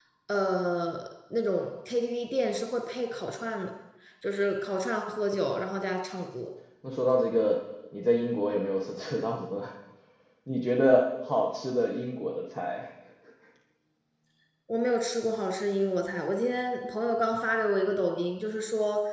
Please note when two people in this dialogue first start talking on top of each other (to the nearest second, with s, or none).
none